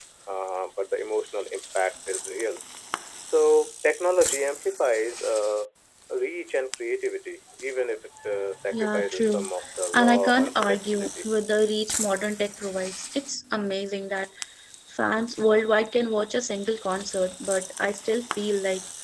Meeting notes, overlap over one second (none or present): present